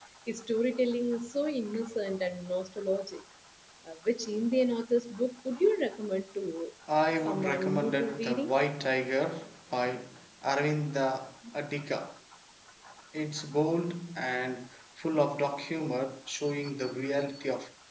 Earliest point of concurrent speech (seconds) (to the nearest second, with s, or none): 7 s